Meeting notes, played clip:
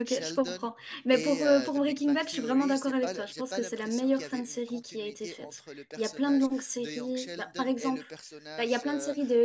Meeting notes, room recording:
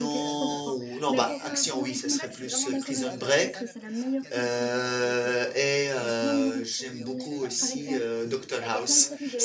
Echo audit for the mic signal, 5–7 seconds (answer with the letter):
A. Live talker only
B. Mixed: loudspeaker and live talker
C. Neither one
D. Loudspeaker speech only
B